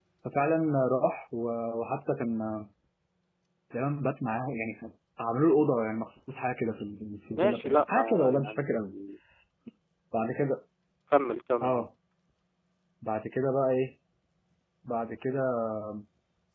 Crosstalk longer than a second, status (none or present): present